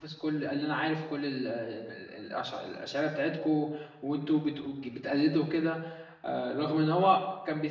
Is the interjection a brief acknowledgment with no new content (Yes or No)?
Yes